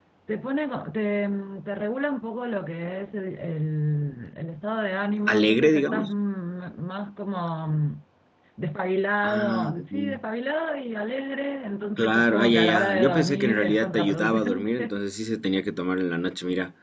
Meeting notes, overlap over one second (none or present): present